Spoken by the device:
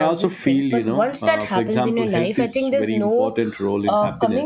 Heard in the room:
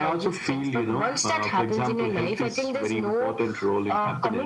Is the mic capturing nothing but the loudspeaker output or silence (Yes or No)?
Yes